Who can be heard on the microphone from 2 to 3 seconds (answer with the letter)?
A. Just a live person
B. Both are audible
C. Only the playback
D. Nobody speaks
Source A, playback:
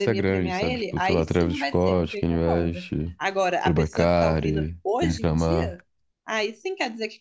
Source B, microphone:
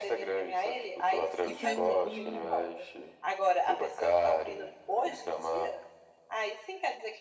B